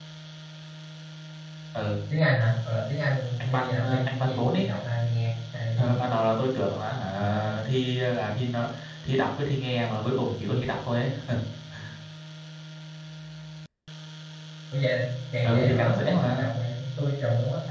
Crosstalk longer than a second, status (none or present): present